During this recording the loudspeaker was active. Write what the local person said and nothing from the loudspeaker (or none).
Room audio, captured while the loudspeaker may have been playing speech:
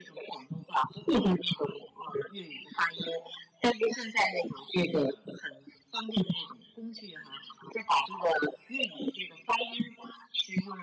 none